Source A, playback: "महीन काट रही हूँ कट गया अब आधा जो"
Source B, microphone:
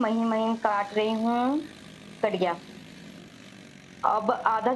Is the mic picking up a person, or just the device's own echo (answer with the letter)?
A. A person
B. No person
B